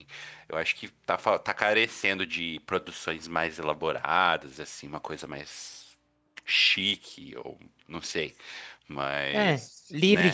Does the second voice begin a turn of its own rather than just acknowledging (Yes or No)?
Yes